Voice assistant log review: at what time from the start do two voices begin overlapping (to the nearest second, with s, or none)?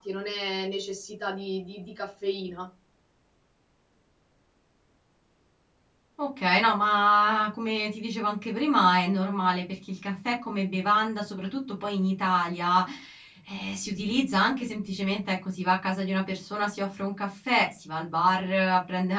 none